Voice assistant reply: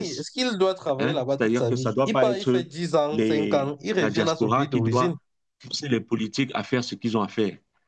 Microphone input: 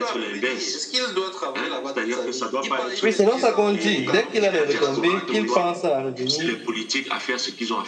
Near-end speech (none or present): present